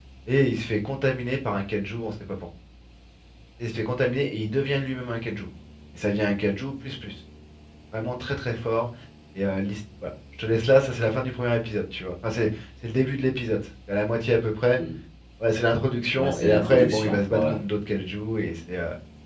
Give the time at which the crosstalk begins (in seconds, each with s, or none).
16.2 s